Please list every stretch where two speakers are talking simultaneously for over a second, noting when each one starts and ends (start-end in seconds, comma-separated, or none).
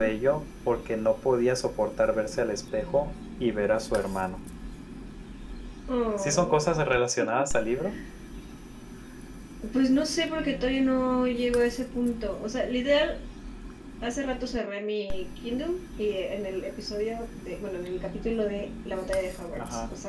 none